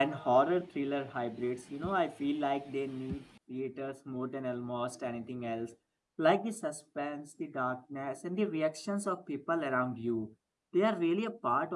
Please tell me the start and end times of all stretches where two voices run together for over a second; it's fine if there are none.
none

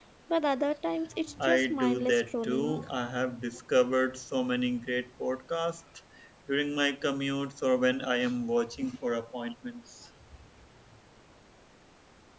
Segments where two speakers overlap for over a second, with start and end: 1.4-2.8

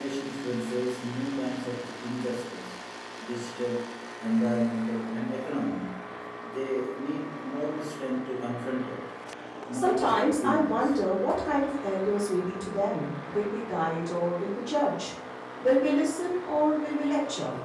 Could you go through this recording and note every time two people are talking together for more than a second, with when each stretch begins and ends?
9.7-11.0

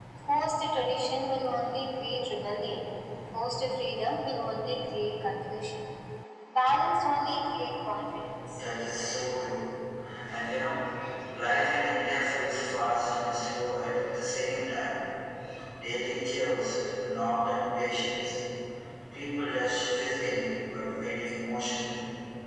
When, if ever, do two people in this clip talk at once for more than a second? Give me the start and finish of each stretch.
none

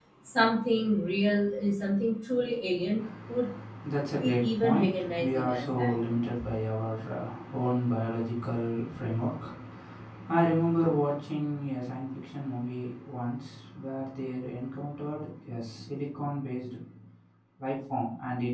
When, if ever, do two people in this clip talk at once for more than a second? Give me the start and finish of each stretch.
4.2-6.0

